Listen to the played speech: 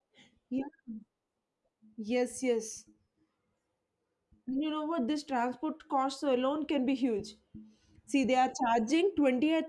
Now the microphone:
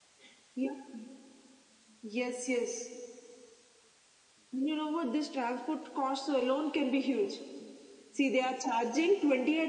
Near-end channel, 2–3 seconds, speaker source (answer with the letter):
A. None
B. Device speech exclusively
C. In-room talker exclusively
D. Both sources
B